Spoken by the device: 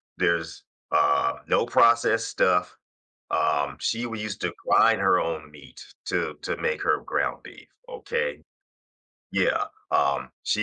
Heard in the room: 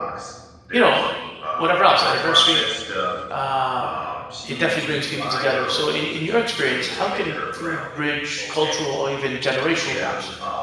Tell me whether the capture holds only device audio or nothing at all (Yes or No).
No